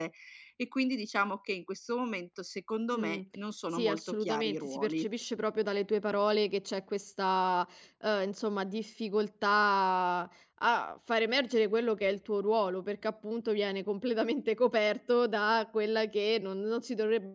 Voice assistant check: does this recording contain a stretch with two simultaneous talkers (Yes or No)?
Yes